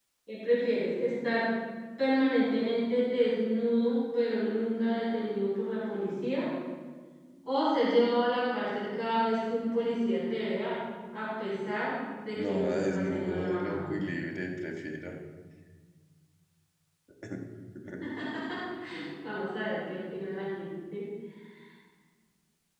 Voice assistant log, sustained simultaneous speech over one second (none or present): present